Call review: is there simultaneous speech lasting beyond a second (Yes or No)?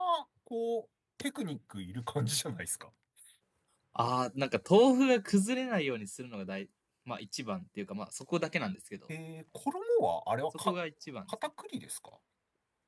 No